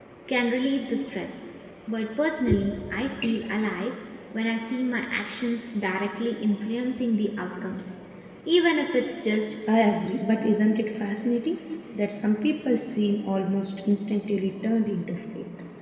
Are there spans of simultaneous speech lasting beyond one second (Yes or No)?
No